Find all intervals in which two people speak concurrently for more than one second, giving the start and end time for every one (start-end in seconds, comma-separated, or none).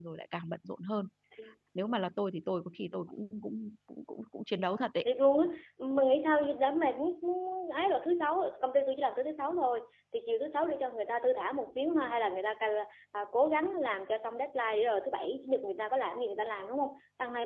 none